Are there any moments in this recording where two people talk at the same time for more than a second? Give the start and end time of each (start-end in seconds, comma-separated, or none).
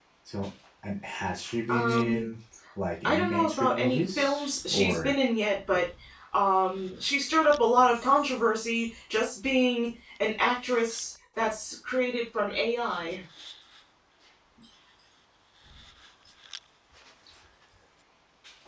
3.0-5.1